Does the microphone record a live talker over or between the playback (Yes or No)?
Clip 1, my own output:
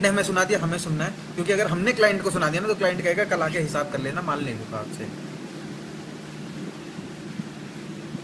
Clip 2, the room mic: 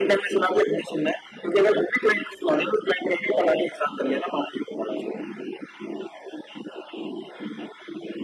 No